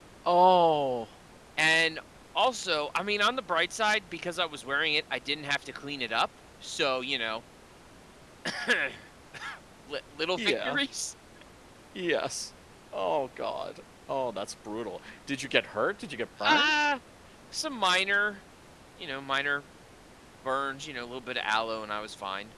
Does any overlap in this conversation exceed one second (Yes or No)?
No